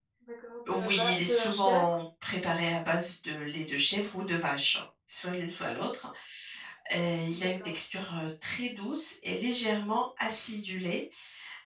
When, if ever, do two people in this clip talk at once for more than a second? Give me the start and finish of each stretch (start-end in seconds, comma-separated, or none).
0.7-1.9